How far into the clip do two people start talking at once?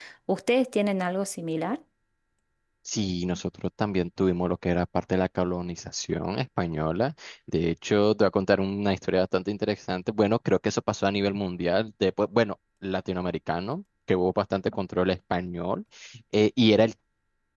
none

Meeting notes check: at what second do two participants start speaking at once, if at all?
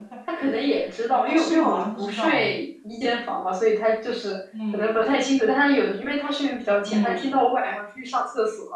1 s

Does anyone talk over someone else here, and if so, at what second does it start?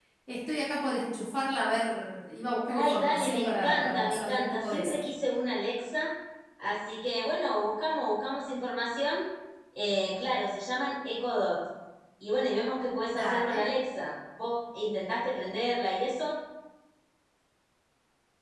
3 s

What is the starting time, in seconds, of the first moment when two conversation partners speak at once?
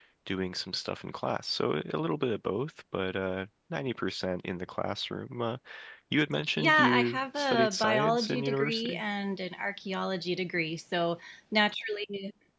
7 s

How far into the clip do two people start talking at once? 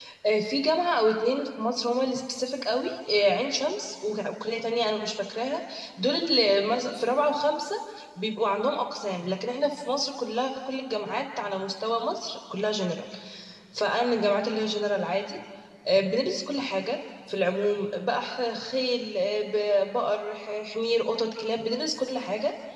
none

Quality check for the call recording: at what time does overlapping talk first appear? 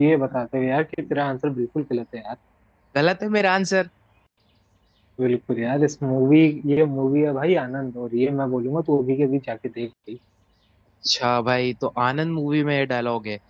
none

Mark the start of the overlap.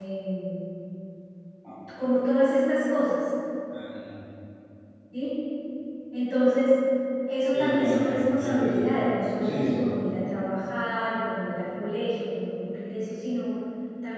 8 s

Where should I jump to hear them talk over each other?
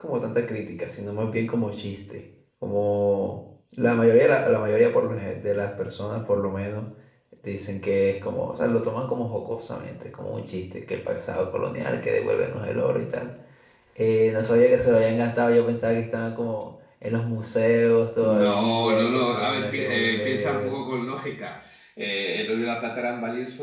18 s

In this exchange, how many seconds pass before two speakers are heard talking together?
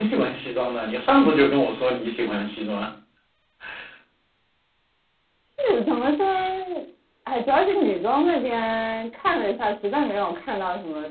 none

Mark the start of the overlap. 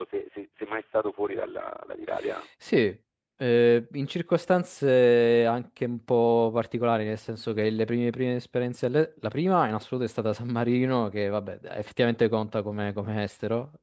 none

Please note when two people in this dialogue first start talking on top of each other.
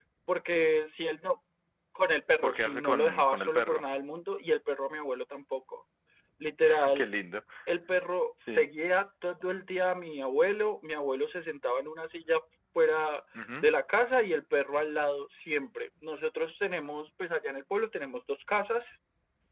2 s

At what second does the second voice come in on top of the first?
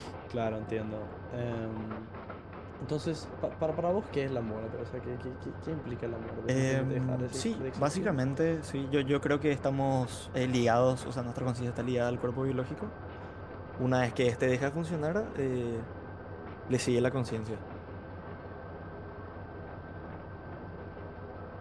6 s

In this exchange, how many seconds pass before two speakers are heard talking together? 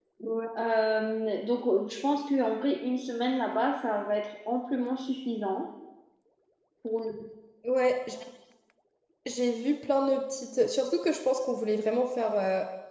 none

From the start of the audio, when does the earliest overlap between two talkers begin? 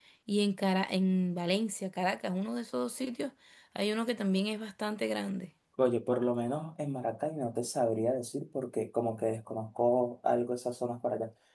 none

